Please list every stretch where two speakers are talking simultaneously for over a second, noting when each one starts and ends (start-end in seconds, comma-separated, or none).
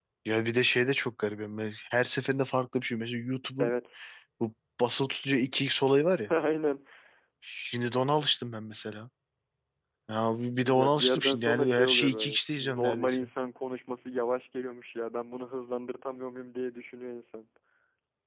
10.6-13.3